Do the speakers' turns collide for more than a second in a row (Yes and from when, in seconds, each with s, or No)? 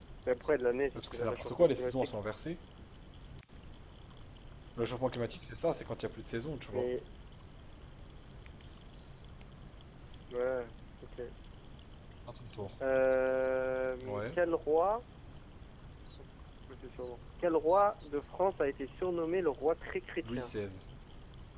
Yes, from 0.9 s